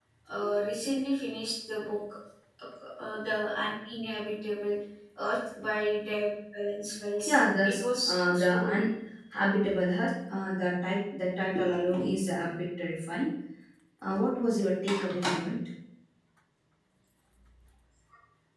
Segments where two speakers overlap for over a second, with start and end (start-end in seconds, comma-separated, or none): 7.3-8.8